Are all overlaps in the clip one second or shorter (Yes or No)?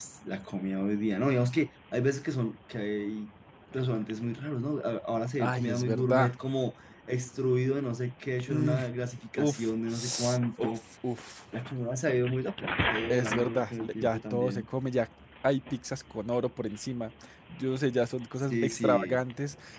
No